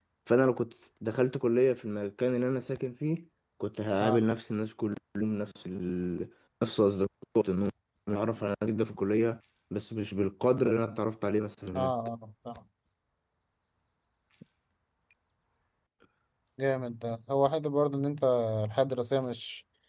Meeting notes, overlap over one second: none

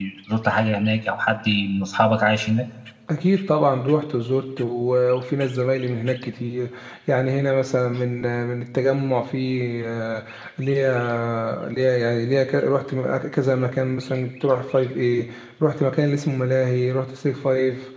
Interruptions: none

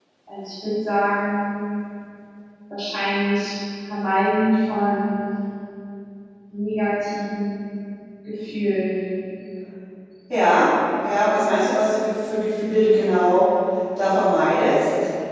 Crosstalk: none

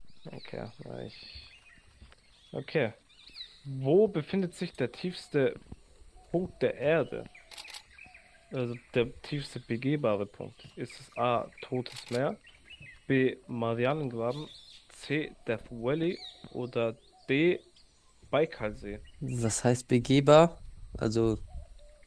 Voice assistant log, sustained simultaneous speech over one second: none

